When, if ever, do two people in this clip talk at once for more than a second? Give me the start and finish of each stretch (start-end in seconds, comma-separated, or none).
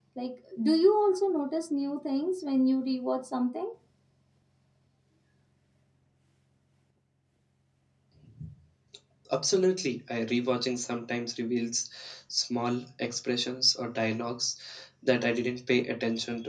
none